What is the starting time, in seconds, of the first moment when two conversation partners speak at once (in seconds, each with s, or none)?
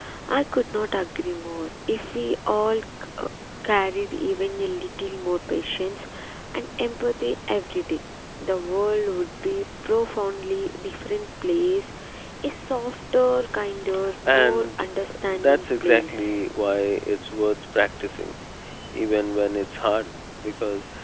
14.3 s